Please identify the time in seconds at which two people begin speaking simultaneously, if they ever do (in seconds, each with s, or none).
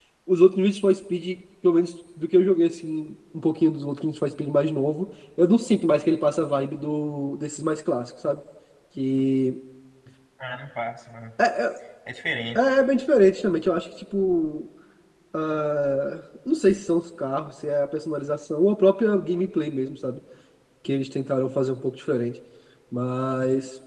none